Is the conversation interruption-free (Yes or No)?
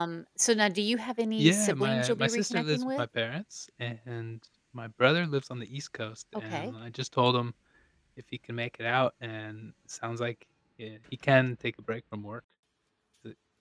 No